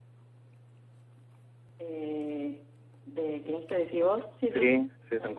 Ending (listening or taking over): taking over